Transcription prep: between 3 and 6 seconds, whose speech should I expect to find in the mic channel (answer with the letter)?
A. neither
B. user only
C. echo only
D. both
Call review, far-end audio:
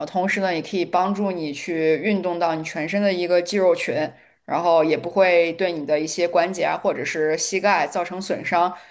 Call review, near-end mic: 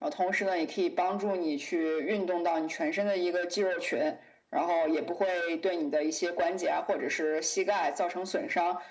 C